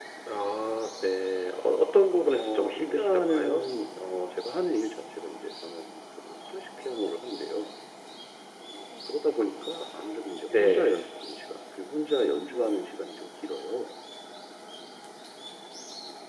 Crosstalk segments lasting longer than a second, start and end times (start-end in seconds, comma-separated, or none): 2.3-3.6